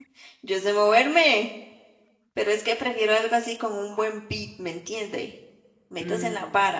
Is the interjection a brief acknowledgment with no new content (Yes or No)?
No